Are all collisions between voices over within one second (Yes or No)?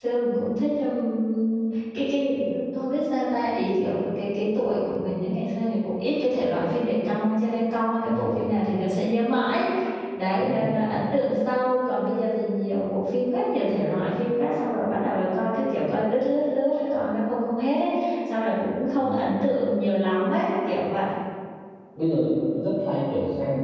Yes